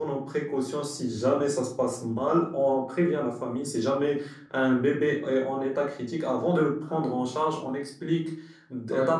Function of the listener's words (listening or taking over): listening